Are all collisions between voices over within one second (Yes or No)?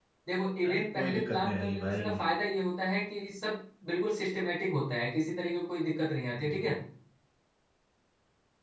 No